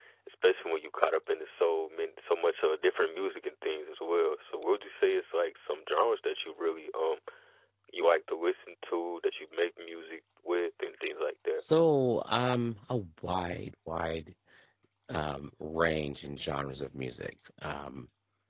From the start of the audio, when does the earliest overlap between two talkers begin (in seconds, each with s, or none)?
none